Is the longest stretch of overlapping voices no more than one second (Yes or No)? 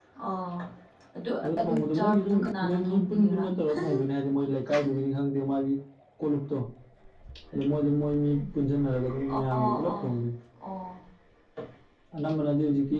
No